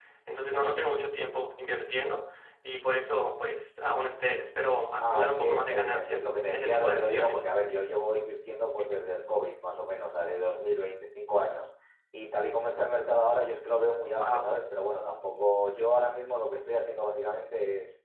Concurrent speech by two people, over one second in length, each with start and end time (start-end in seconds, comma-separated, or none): 5.0-7.4